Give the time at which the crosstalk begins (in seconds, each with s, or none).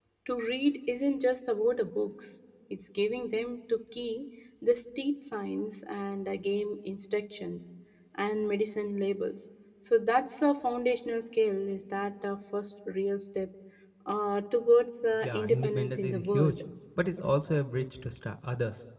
15.2 s